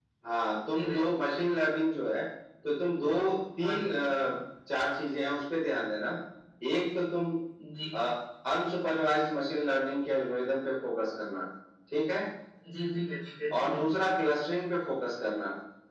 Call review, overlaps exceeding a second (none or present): none